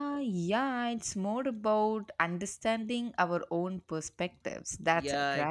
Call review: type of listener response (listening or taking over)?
taking over